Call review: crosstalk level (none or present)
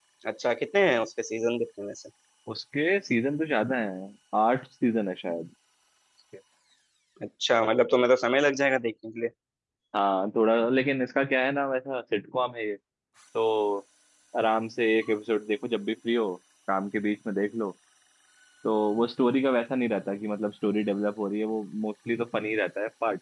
none